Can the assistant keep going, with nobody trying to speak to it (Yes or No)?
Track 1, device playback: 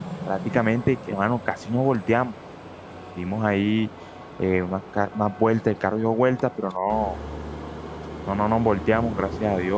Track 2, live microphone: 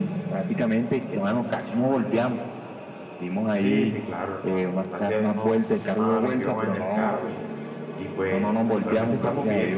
No